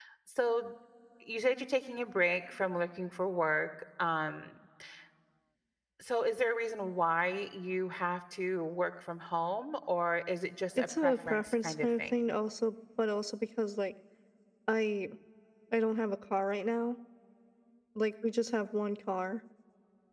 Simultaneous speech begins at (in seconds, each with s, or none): 10.8 s